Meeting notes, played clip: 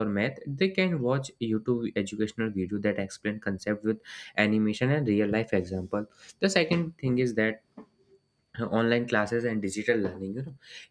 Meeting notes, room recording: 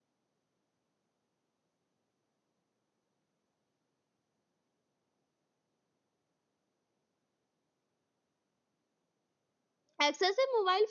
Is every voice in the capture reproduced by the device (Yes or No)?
No